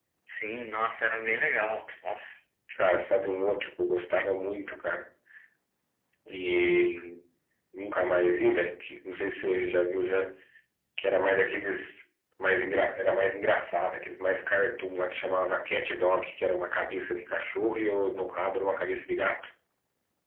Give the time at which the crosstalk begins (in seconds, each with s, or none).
none